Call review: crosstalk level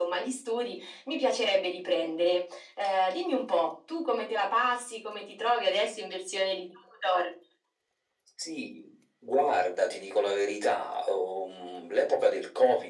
none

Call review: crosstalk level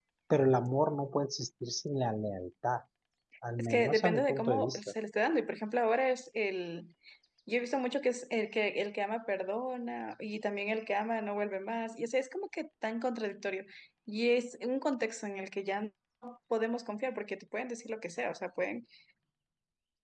present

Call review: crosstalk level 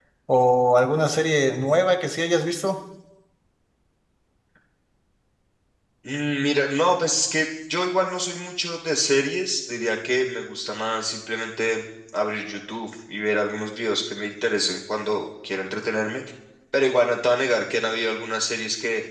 none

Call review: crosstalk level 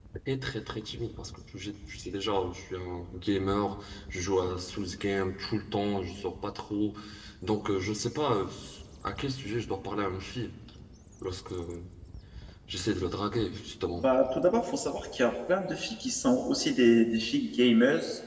none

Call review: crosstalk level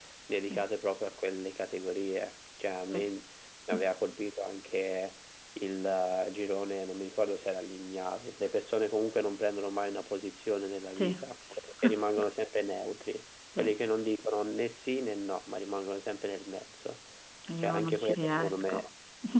present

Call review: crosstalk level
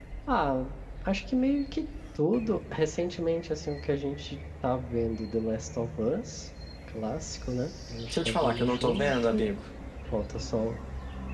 present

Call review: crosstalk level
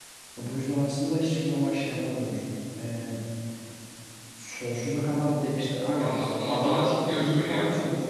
present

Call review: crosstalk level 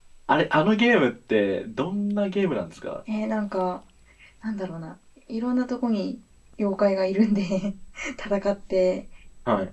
none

